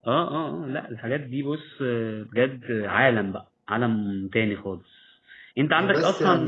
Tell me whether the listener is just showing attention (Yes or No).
Yes